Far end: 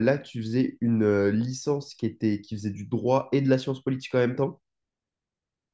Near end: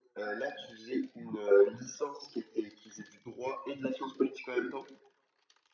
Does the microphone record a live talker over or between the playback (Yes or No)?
No